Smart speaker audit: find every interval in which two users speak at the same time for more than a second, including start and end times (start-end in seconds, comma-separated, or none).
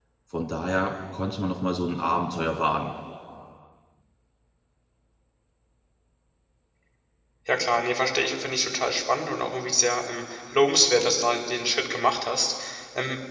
none